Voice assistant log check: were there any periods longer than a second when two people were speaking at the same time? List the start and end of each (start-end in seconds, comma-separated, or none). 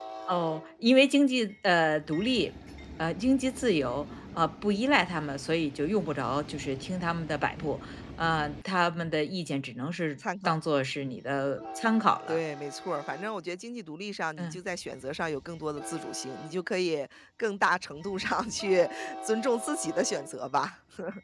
none